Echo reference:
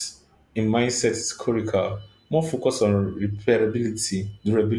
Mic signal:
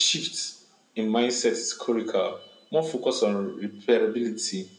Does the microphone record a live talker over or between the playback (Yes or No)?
No